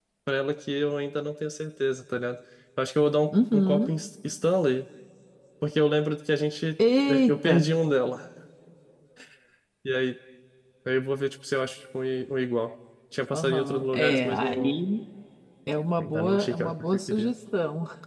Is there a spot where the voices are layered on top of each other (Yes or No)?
Yes